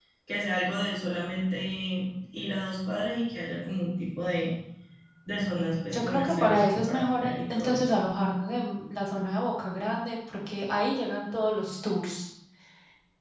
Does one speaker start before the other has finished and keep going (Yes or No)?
Yes